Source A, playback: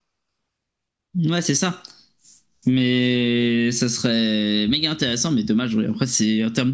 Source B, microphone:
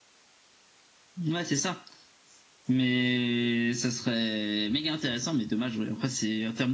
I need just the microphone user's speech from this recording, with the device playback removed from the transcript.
none

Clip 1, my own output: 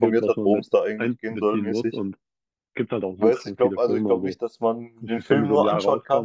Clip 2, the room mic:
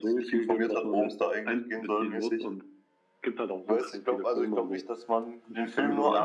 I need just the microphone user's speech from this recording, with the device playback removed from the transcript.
none

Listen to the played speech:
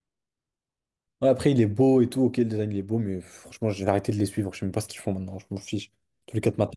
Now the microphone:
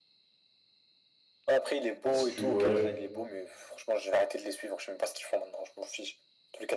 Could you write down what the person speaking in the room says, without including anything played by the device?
Bah, si tu voyages,

